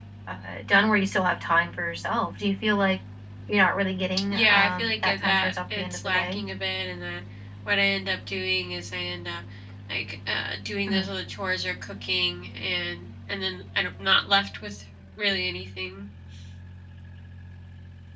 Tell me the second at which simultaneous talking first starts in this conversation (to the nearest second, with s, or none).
4 s